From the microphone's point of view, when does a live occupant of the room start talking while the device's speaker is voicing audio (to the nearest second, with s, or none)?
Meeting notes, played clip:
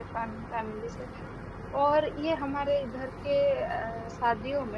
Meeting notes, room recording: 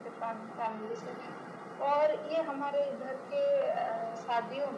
none